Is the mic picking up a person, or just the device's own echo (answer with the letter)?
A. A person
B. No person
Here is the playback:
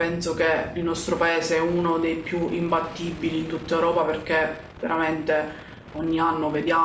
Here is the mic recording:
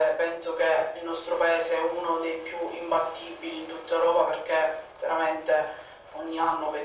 B